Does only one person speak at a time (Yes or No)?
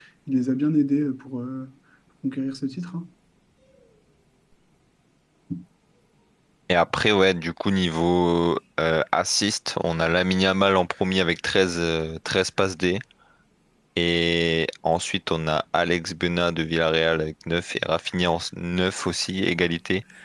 Yes